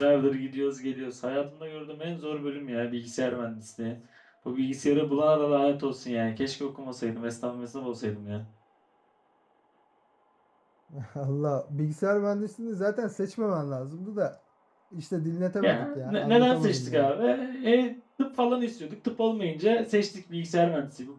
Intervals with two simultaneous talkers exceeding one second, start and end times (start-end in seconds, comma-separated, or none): 15.6-17.1